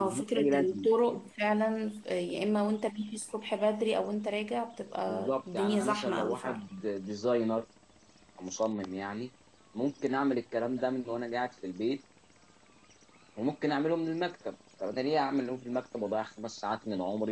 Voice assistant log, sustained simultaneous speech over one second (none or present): present